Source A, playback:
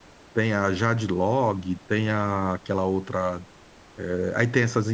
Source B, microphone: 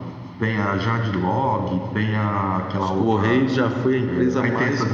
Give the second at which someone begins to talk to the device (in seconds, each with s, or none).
2.8 s